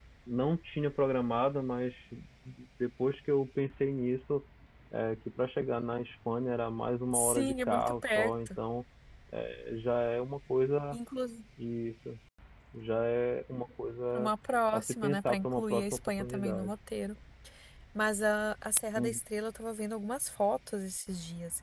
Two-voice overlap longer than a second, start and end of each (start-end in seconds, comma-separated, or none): 7.1-8.5, 14.7-16.7